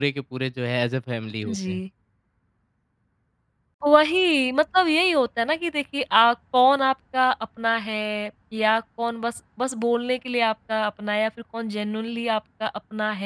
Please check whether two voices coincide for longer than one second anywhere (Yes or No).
No